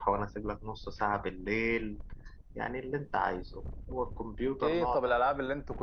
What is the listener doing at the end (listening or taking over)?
taking over